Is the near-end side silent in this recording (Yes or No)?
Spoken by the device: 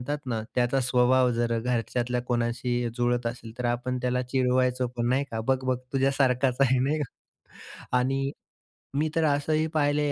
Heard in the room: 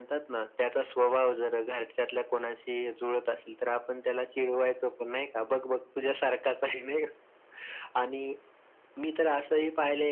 Yes